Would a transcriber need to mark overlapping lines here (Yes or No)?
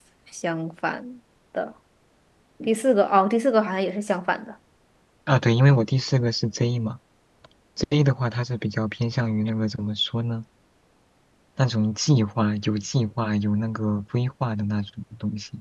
No